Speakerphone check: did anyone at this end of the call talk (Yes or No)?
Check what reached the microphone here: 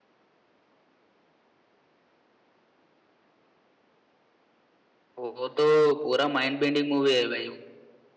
Yes